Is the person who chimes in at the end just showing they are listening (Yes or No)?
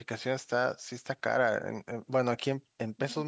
Yes